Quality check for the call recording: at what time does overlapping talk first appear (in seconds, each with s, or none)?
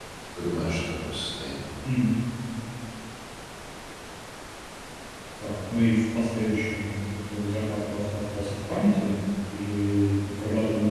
none